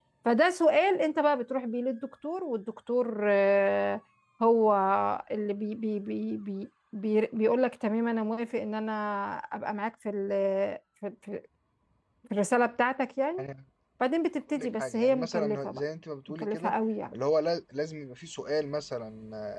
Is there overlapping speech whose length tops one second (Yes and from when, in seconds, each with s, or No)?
Yes, from 14.5 s